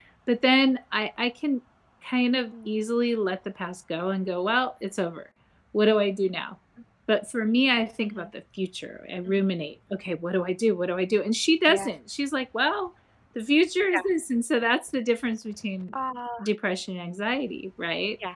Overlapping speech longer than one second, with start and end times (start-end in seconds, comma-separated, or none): none